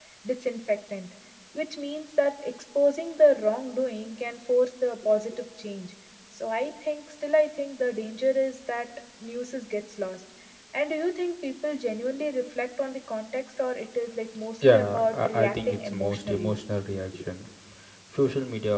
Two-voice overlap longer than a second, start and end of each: 14.7-16.5

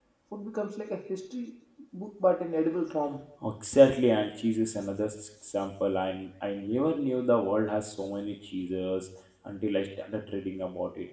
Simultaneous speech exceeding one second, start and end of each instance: none

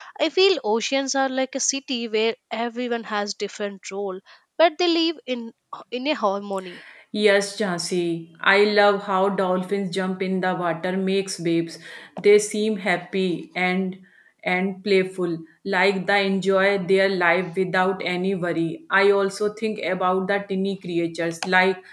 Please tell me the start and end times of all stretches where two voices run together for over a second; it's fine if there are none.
none

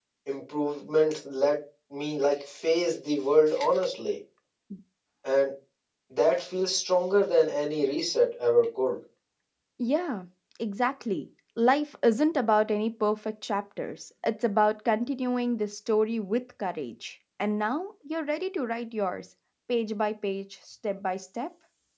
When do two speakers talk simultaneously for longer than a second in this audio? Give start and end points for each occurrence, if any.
none

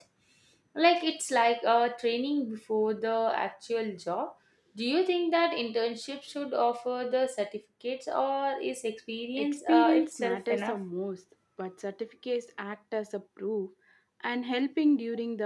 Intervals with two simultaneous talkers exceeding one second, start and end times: 9.4-10.8

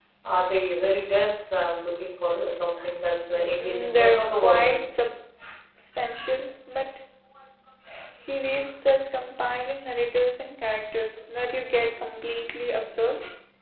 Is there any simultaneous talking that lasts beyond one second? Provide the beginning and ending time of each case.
3.6-4.8

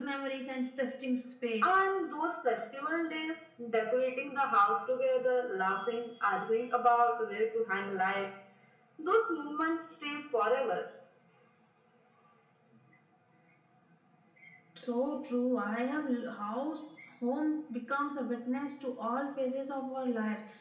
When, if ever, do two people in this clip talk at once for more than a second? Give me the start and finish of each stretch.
none

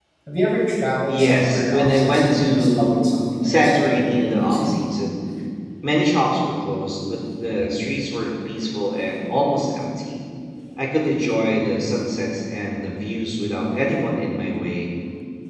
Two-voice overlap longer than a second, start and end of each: 1.1-3.0, 3.4-4.8

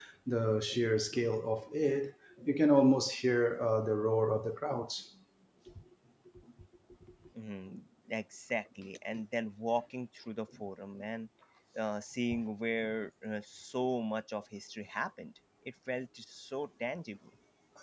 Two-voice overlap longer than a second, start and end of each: none

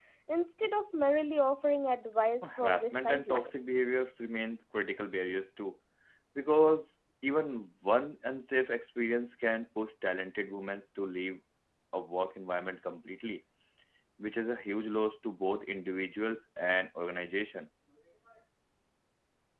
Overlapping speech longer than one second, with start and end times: 2.4-3.8

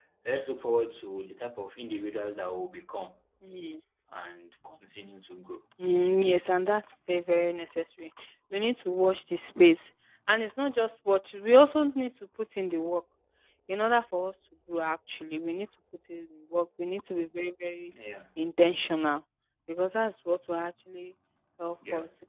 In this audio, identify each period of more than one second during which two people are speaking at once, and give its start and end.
none

